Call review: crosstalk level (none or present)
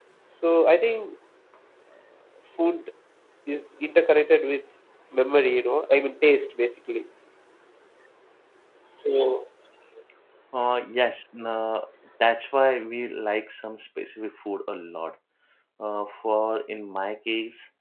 none